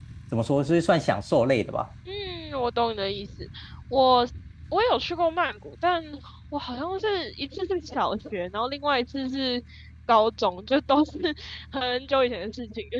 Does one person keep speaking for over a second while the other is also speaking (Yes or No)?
No